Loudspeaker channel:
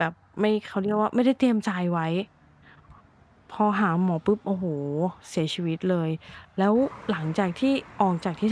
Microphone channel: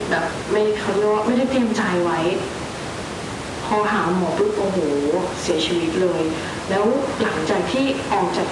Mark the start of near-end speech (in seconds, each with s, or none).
none